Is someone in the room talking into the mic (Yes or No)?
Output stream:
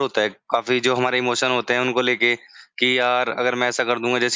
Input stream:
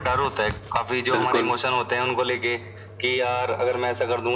Yes